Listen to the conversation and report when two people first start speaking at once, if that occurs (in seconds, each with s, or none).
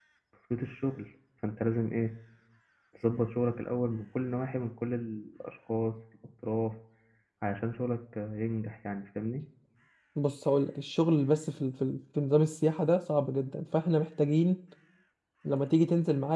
none